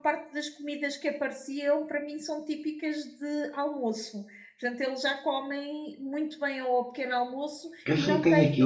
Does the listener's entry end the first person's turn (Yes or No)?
Yes